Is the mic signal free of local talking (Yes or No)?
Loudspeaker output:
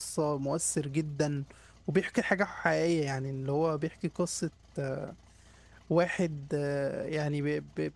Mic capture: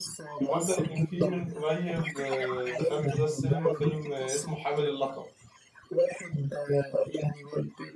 No